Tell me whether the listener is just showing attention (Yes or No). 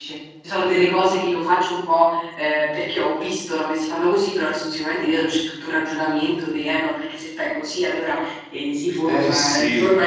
Yes